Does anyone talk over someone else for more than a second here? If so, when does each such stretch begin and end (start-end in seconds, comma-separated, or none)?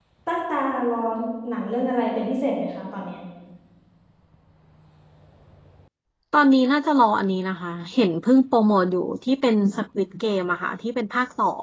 none